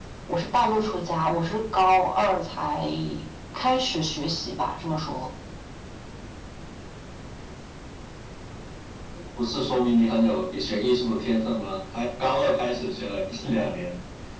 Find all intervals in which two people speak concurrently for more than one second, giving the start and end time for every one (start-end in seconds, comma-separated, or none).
none